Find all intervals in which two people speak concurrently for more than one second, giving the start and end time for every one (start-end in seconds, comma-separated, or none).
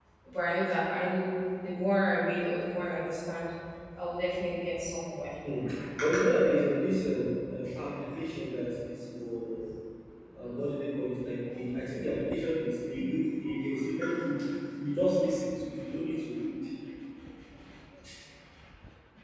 none